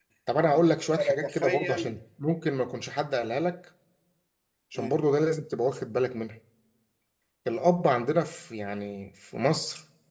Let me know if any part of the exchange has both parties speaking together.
Yes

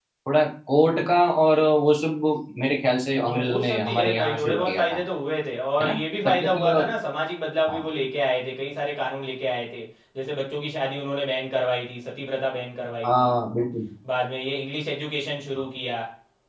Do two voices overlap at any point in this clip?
Yes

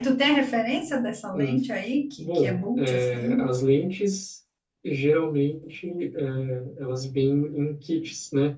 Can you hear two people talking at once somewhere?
Yes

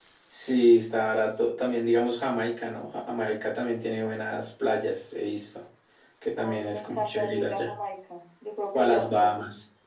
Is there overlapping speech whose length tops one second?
Yes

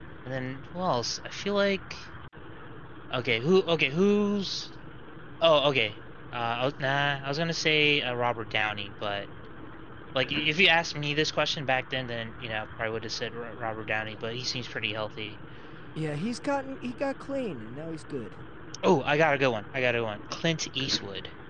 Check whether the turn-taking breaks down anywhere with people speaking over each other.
No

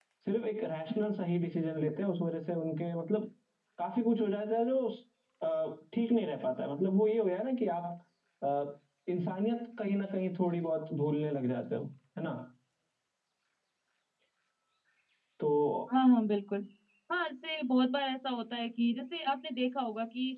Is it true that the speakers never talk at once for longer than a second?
Yes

